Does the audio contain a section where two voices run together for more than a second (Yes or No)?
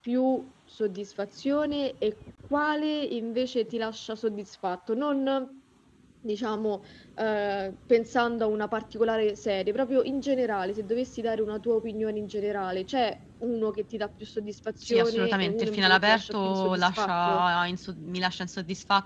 Yes